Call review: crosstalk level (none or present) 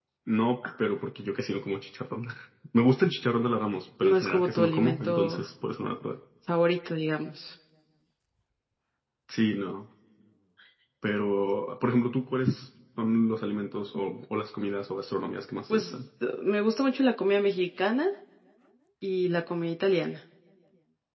present